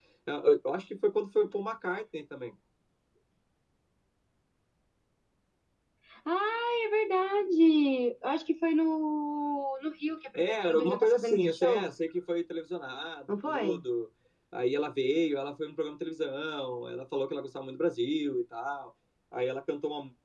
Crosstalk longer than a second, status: present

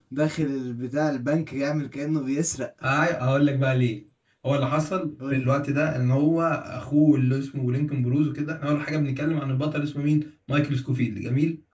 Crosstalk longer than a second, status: none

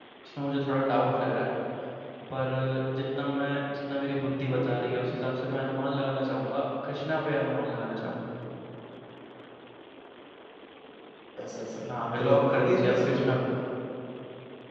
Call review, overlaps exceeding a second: present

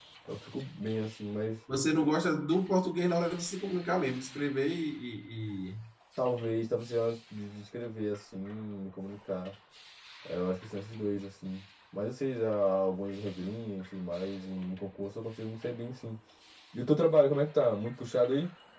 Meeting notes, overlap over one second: none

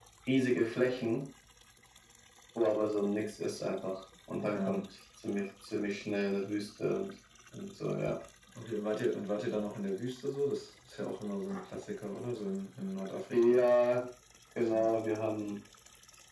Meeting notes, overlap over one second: none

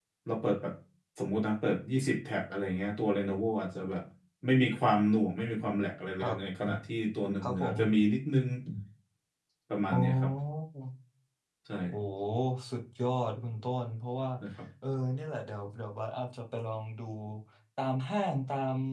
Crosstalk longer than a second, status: none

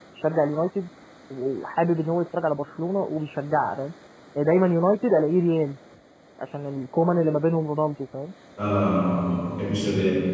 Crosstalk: none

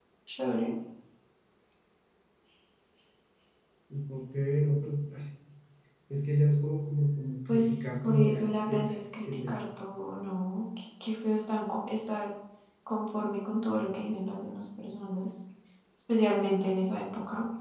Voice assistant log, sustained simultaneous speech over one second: present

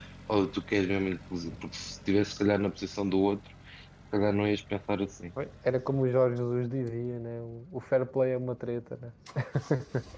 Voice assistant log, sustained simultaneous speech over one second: none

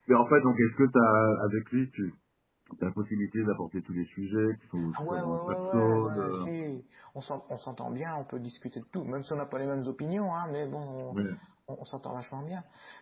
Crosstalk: present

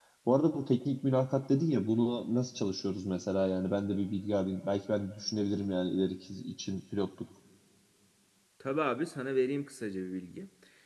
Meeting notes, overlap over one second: none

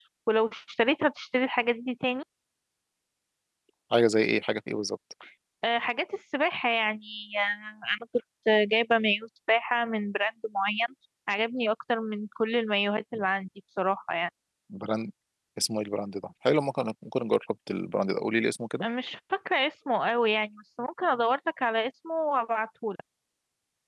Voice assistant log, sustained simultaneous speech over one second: none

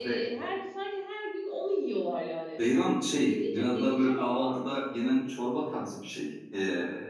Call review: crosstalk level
present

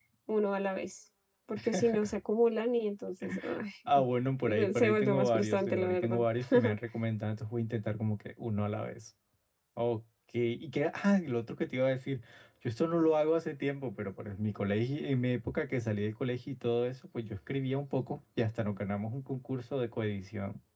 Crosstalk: present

